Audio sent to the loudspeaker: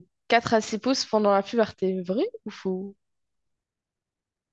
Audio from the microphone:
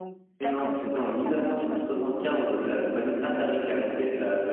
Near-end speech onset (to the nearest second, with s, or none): 0 s